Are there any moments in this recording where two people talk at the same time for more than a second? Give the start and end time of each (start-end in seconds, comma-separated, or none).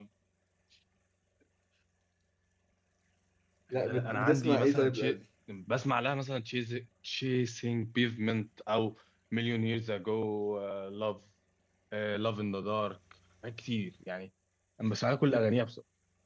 3.7-5.2